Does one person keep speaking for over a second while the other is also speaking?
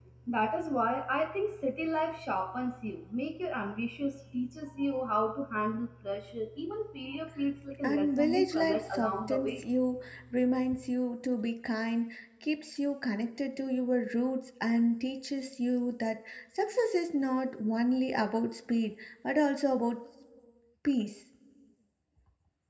Yes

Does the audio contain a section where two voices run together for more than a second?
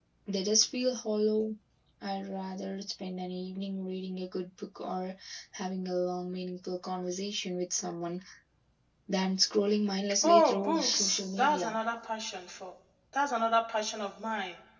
Yes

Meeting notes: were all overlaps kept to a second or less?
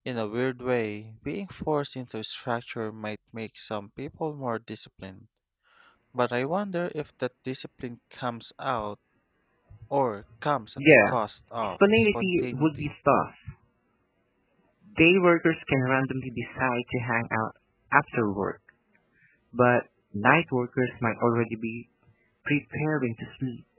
No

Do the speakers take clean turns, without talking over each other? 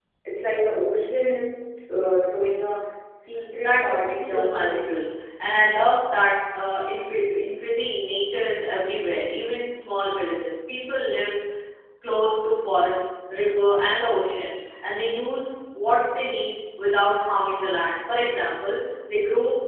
No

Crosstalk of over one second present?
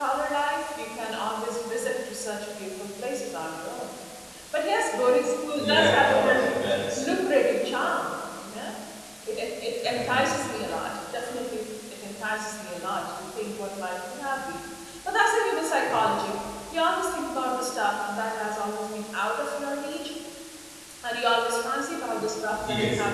Yes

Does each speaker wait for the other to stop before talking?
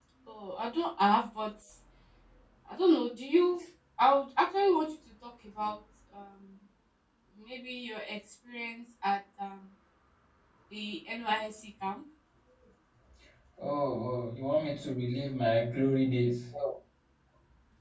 Yes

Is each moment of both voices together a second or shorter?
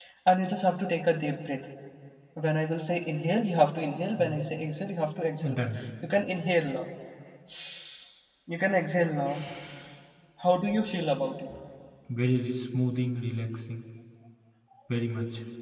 Yes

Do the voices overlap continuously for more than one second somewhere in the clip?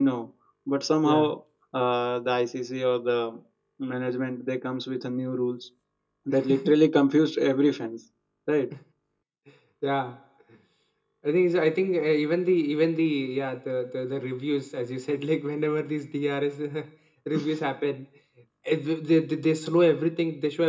No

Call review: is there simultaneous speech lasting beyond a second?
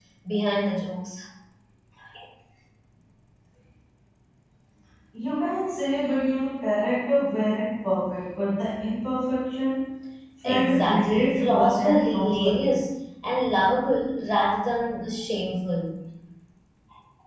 Yes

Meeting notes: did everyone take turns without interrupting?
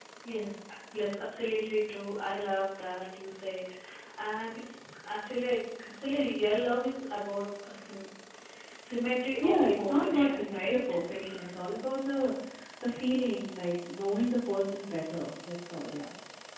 No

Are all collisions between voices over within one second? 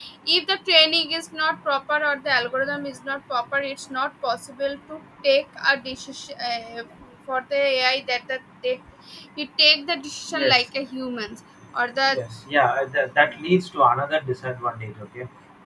Yes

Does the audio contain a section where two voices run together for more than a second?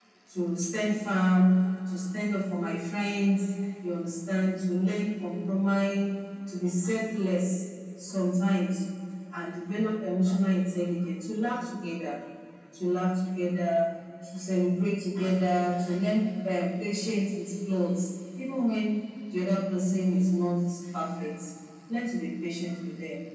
No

